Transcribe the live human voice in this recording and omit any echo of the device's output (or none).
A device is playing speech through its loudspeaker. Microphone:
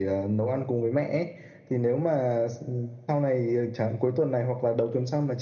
none